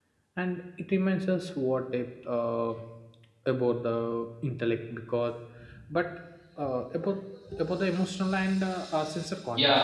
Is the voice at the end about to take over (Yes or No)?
Yes